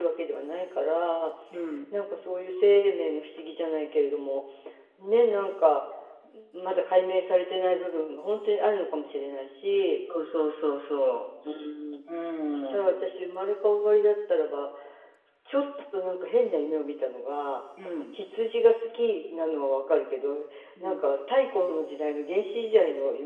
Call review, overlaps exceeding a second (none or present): none